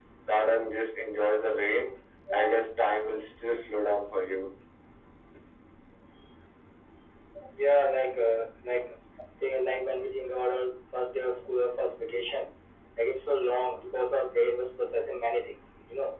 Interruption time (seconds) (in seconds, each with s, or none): none